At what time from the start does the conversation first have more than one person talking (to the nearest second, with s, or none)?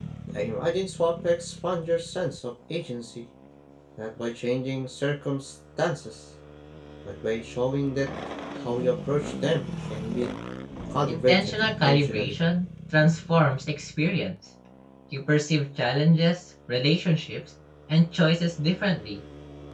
11 s